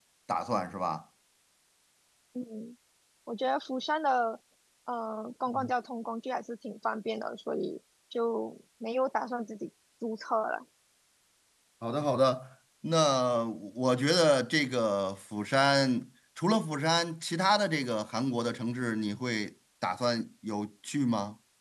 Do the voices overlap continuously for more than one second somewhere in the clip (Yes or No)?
No